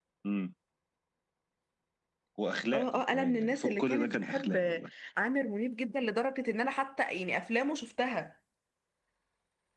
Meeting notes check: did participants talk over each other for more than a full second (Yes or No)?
Yes